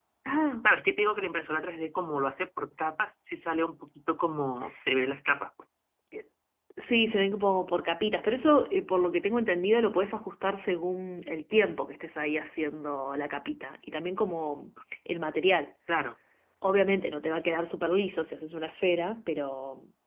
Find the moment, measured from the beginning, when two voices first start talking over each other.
none

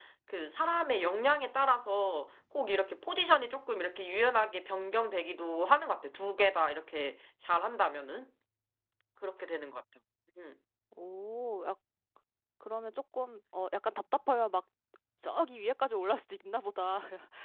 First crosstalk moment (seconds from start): none

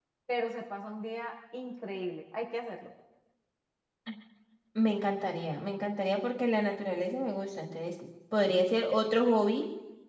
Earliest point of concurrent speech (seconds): none

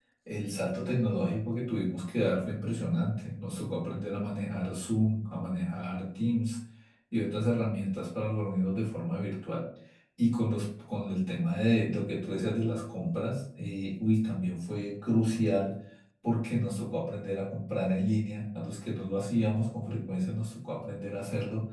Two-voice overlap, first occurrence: none

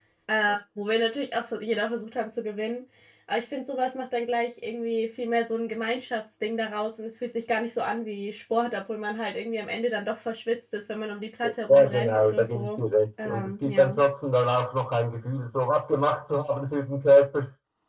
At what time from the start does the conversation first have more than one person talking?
11.4 s

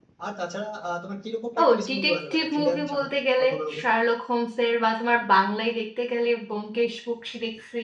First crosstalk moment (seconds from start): 1.6 s

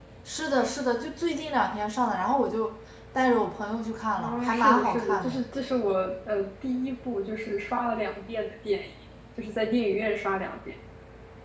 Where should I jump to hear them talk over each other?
4.2 s

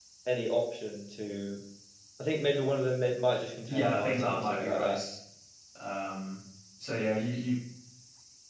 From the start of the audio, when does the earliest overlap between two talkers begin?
3.7 s

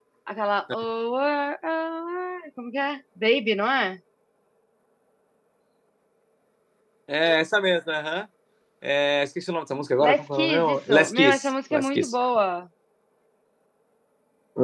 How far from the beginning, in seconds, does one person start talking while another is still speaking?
10.0 s

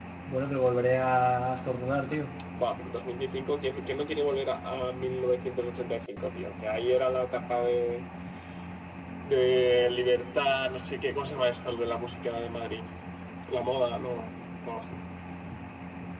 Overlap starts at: none

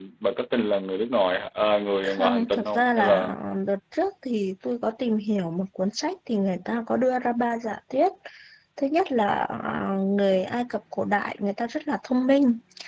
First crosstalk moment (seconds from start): 2.0 s

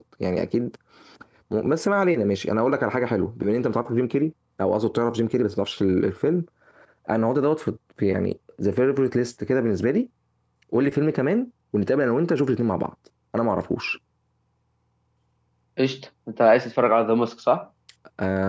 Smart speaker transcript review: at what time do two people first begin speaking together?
none

